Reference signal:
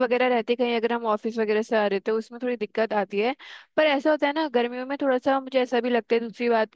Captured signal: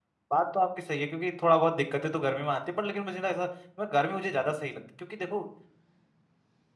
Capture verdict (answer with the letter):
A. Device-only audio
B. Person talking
B